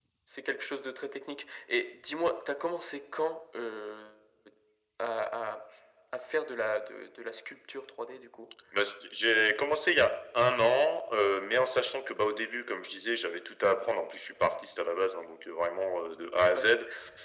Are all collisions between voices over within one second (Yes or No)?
Yes